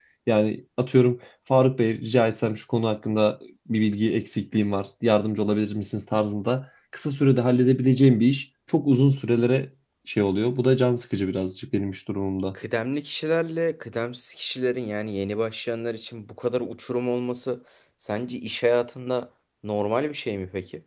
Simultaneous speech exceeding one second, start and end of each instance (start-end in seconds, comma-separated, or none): none